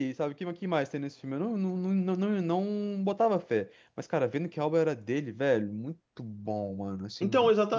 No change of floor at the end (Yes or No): No